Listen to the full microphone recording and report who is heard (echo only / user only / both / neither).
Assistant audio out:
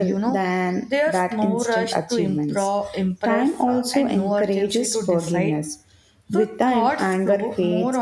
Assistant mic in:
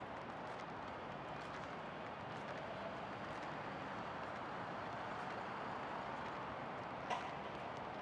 neither